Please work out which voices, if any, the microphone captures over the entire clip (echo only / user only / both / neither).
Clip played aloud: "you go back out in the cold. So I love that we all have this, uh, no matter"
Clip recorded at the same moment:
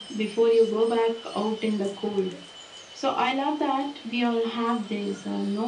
echo only